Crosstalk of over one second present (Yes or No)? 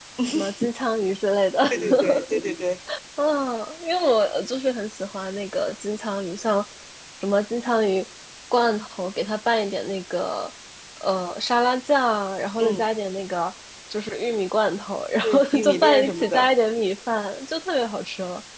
Yes